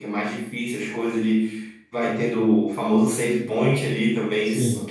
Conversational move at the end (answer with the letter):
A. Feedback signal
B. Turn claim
A